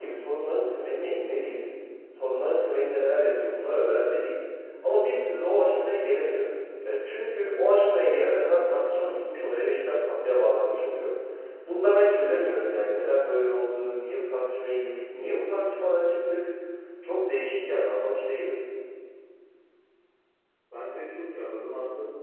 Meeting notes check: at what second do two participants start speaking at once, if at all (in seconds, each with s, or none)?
none